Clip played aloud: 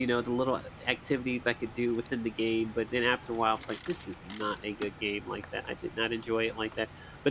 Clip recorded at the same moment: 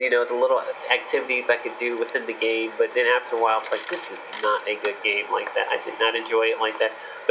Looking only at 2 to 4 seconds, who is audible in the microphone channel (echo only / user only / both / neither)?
echo only